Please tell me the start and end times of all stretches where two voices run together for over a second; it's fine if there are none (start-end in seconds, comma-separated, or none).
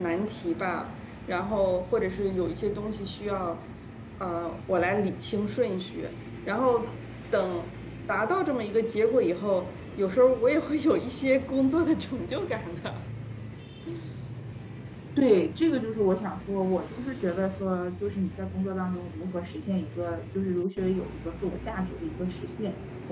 none